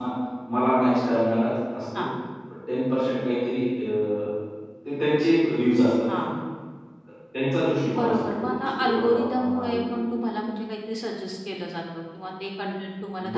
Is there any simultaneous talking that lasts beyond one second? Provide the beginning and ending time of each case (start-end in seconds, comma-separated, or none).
8.0-10.1